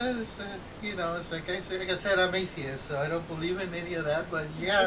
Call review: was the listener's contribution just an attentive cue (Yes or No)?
No